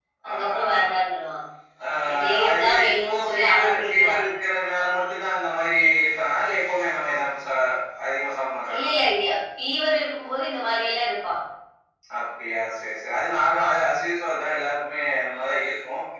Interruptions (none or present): present